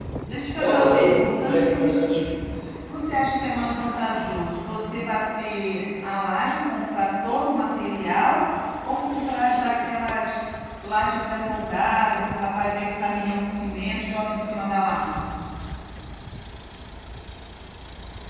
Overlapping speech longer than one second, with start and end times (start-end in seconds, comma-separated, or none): 0.5-2.3